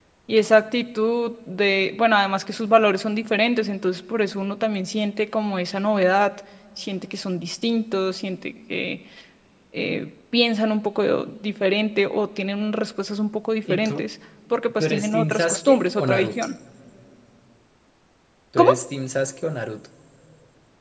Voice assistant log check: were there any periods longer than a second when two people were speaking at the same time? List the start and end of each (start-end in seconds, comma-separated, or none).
14.8-16.4